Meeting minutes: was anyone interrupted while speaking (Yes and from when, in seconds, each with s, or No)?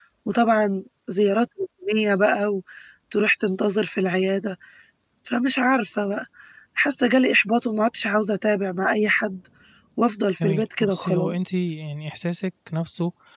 Yes, from 10.4 s